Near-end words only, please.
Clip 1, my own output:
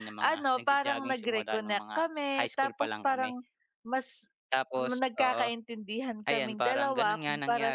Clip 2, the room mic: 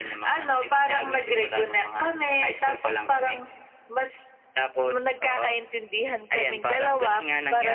none

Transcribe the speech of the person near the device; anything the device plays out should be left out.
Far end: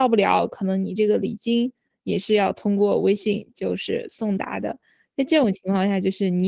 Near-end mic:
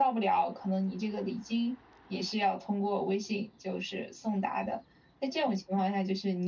none

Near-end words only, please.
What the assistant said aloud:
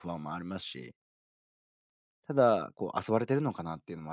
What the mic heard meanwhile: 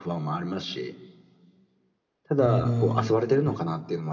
うーん。

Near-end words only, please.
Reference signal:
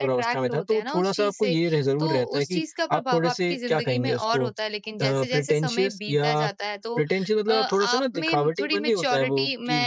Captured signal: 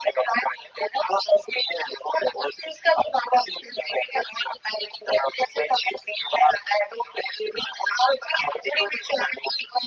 none

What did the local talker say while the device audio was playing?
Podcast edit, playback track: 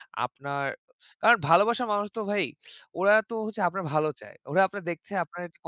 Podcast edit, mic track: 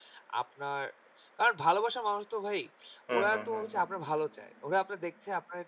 হুম, হুম, হুম, হুম।

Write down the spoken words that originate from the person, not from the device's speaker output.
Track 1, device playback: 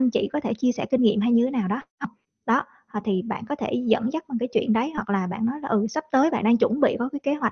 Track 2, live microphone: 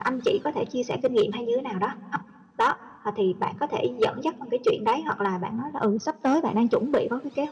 none

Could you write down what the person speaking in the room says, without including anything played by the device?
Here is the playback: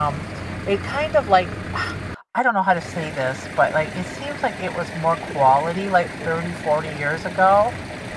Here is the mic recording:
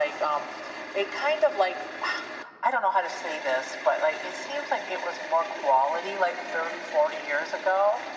none

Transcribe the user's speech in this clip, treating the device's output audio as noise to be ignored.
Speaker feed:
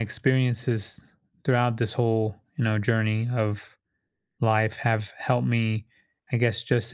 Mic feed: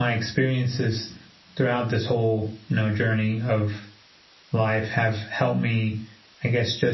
none

